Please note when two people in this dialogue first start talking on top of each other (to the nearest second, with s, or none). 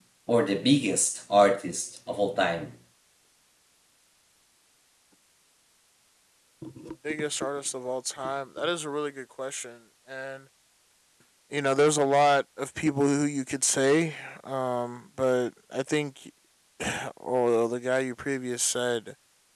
none